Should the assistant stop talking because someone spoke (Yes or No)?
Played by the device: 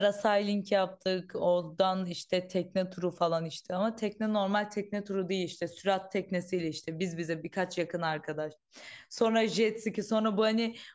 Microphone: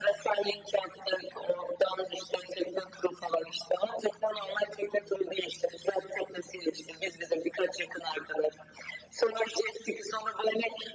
No